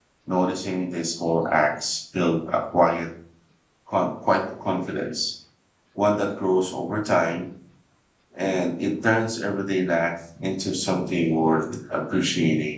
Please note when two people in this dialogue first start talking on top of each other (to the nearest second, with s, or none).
none